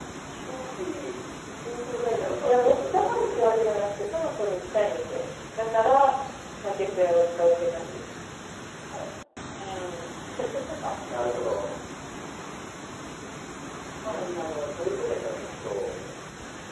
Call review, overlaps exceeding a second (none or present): present